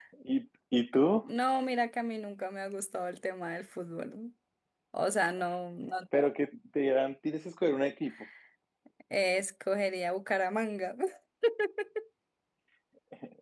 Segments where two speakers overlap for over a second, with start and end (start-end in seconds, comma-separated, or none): none